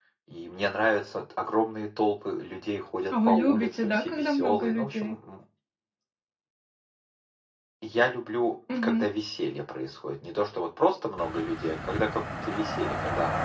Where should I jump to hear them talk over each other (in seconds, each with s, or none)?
3.2 s